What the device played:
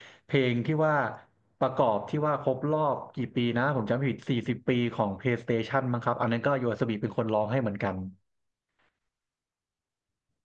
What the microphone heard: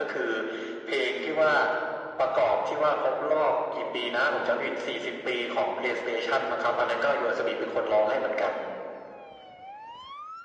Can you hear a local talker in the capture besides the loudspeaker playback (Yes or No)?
No